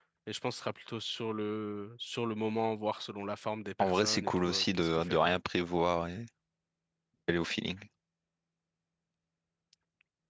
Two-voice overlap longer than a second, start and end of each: 3.8-5.3

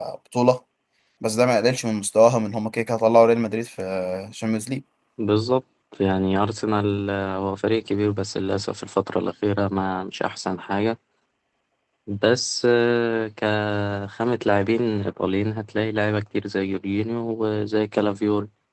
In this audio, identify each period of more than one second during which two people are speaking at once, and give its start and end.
none

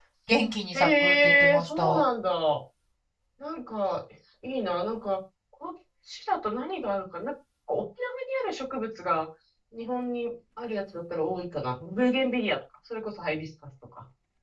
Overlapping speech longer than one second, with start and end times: 0.7-2.0

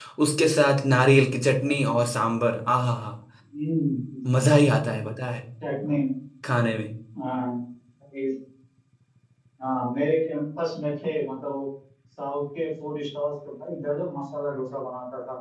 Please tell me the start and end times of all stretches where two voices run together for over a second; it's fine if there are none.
none

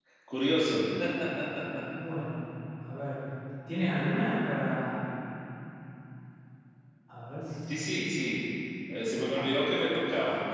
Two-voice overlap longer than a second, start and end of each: none

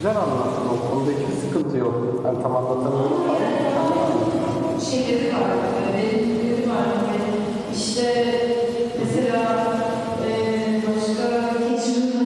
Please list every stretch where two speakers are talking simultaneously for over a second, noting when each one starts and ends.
2.9-4.2

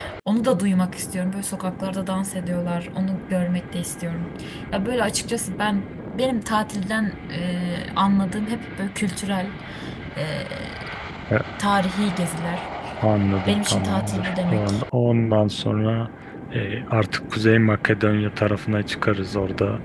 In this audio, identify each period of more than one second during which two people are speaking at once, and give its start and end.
13.5-14.8

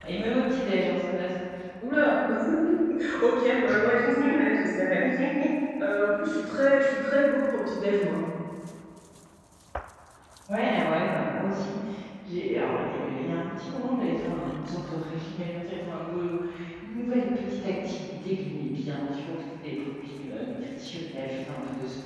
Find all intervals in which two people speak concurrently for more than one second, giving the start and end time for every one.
none

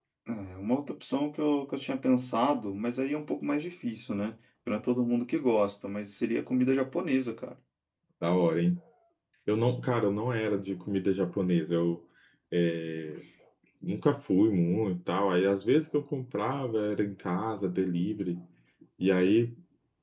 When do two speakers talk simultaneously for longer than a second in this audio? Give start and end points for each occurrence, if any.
none

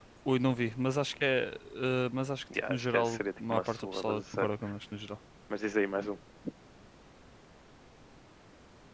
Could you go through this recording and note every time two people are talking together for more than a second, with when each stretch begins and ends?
2.7-4.5

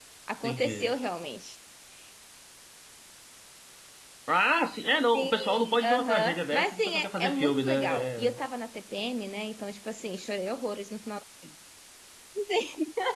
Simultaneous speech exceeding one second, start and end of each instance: 5.1-8.4

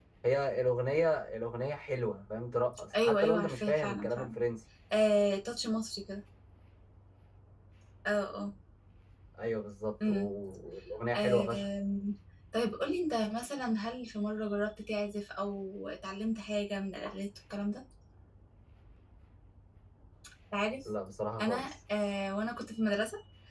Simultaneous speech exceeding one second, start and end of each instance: 3.0-4.3

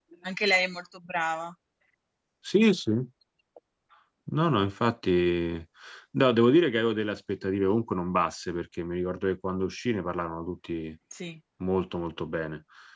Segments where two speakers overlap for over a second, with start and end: none

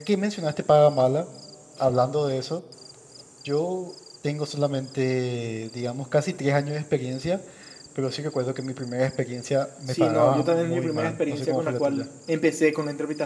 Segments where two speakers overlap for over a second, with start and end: 9.9-12.1

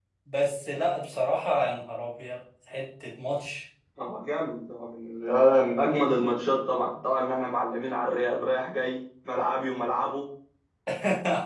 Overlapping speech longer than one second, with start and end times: none

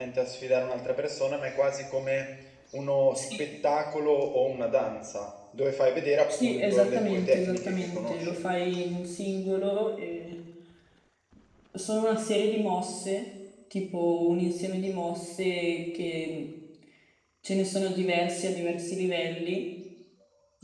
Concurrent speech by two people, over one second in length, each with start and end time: 6.3-8.4

